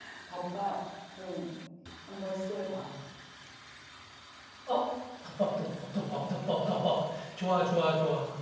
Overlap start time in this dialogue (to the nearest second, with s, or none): none